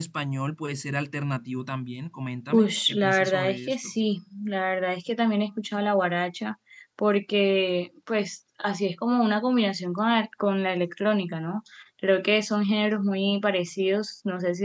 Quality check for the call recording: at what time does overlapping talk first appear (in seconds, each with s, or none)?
2.5 s